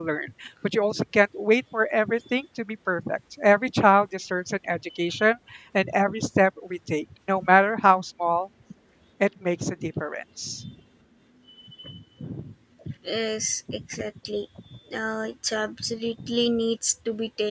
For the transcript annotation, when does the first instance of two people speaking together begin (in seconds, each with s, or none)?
none